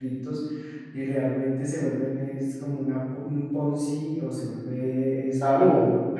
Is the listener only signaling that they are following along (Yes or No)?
No